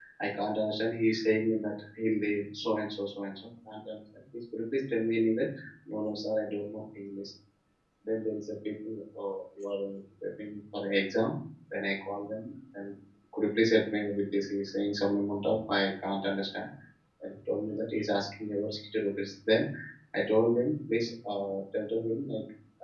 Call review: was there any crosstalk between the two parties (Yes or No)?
No